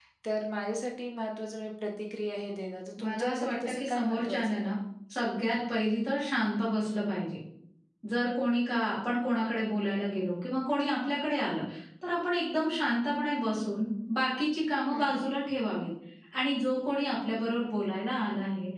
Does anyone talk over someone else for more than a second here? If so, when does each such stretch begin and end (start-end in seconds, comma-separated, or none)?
3.0-4.7